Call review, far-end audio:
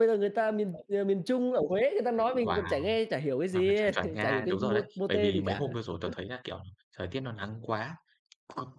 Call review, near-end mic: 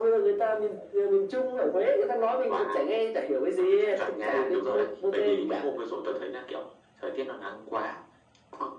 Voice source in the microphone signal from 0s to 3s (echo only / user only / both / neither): echo only